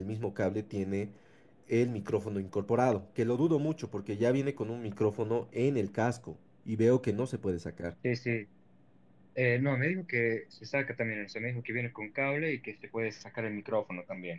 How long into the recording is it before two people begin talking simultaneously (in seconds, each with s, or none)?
none